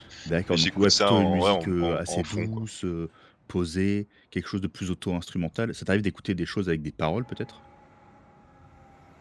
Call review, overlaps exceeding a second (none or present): present